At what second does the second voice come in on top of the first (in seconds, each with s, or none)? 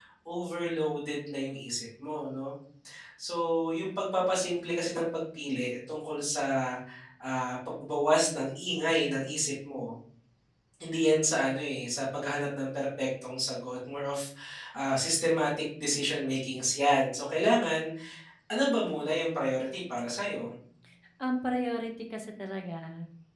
none